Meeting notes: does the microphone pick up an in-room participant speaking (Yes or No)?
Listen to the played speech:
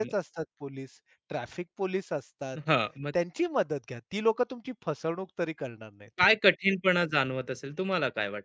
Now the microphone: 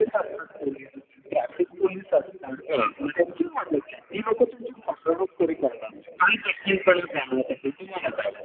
No